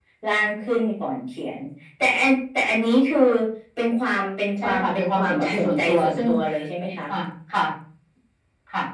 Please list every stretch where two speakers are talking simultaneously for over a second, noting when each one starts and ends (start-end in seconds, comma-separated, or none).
4.6-6.3